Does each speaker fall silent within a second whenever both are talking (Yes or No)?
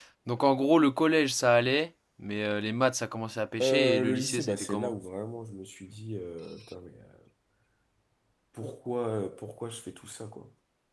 No